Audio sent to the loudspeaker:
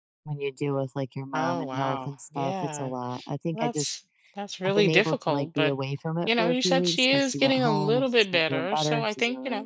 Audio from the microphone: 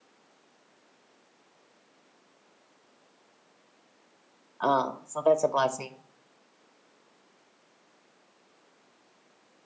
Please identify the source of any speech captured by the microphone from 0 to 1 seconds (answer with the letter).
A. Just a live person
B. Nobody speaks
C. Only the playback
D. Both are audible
B